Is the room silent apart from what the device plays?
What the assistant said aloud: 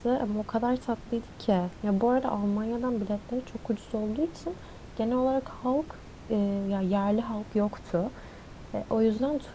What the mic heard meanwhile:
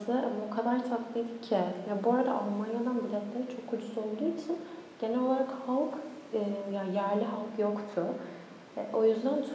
Yes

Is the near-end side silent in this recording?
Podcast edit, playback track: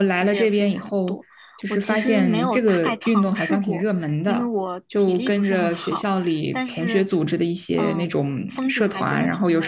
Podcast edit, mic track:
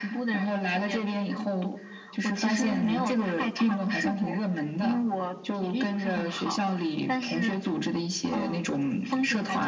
Yes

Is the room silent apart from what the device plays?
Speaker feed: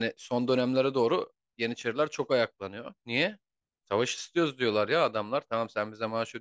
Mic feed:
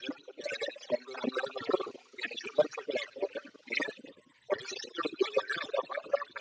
Yes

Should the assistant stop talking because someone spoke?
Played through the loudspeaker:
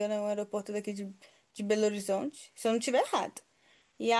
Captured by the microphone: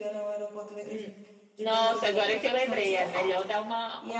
Yes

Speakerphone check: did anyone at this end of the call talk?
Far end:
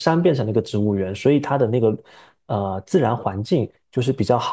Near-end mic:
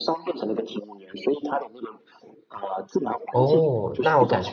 Yes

